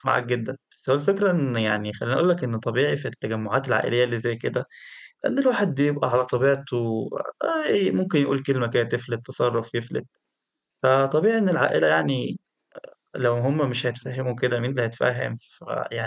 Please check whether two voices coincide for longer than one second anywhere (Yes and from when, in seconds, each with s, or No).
No